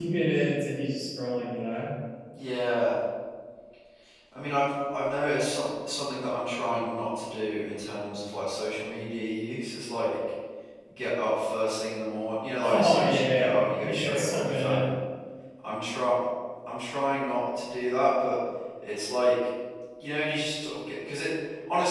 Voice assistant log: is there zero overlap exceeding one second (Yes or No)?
No